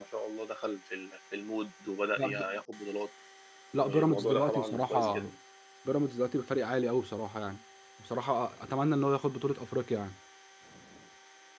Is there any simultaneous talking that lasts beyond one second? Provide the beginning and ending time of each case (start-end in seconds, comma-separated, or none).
3.8-5.3